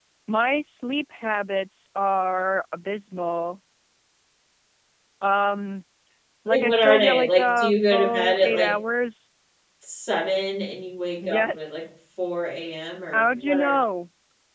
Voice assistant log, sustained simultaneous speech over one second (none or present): present